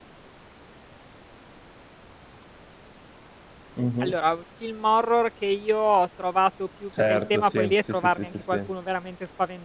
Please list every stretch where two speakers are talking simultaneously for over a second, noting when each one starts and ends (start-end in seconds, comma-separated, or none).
7.1-8.7